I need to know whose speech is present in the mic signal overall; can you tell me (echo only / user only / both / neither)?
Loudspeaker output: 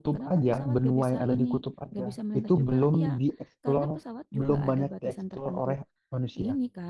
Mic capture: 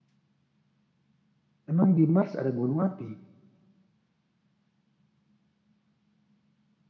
user only